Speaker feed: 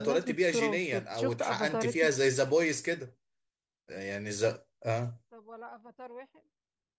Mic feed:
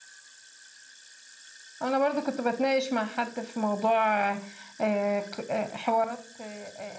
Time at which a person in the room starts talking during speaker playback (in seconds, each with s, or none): 1.8 s